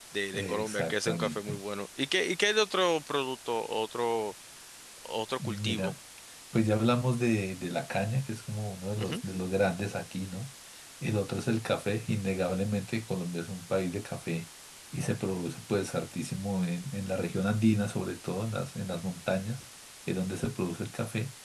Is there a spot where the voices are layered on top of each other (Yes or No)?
Yes